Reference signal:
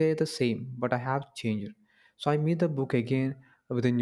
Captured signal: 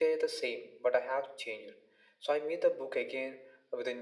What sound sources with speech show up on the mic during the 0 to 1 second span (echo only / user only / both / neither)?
echo only